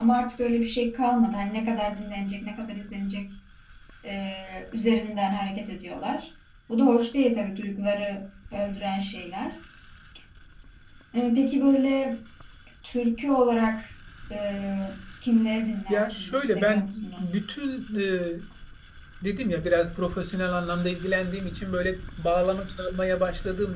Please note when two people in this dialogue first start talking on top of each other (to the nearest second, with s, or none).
16 s